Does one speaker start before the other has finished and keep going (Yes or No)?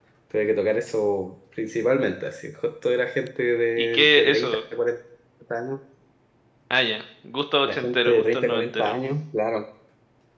Yes